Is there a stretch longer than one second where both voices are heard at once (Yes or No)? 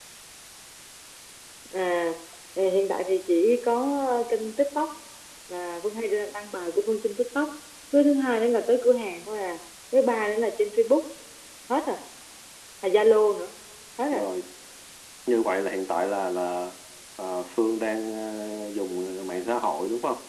No